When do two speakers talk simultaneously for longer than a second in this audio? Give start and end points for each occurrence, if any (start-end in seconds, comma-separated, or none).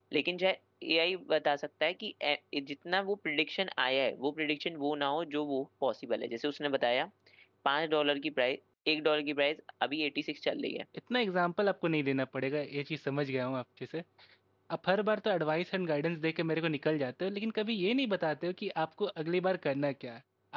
none